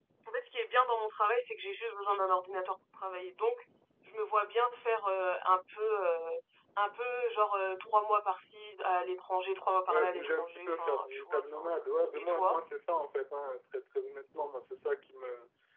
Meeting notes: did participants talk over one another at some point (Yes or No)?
Yes